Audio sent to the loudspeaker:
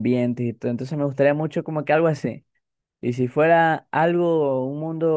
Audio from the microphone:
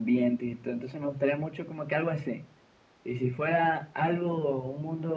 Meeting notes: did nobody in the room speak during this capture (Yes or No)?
Yes